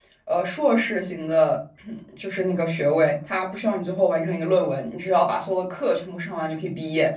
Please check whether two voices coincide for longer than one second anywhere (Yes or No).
No